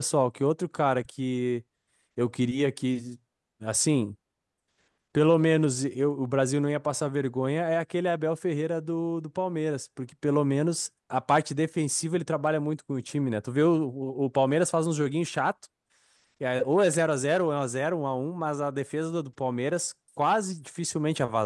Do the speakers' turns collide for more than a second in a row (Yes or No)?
No